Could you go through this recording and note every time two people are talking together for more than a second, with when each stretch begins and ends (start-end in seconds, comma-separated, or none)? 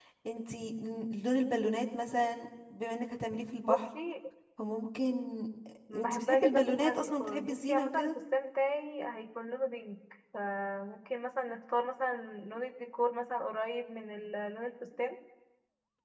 6.0-8.1